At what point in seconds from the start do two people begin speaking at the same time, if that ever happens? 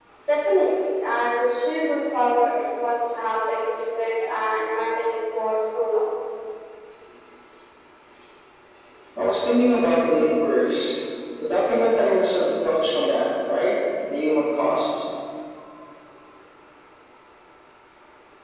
none

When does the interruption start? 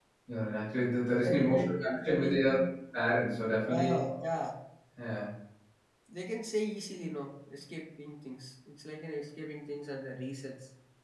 1.2 s

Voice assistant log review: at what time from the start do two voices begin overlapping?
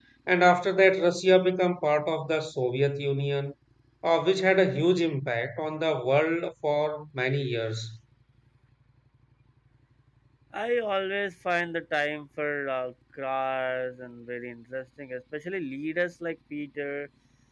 none

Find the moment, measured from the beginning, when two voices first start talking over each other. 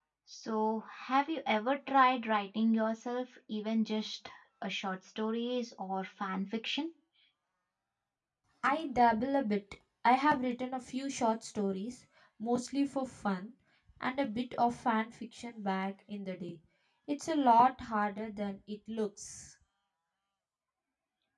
none

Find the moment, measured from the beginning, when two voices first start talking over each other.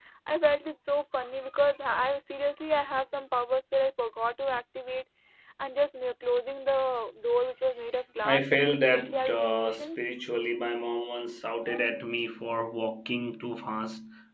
8.2 s

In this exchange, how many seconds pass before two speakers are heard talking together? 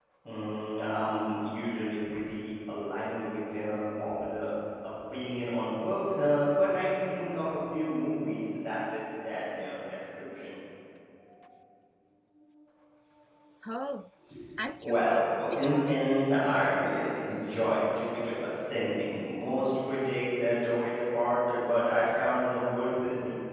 14.8 s

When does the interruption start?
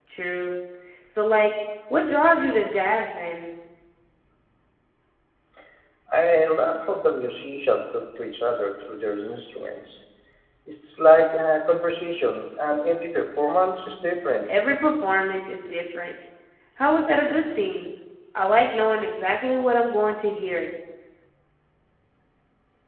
none

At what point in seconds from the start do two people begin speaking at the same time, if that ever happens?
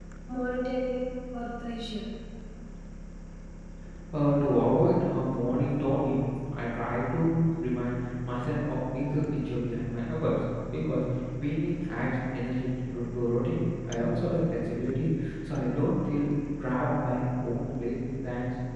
none

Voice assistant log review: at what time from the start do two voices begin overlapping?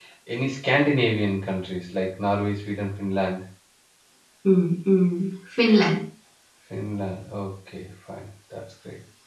none

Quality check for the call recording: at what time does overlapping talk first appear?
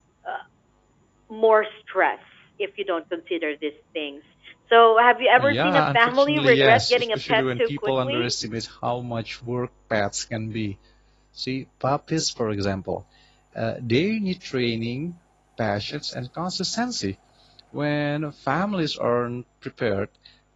5.4 s

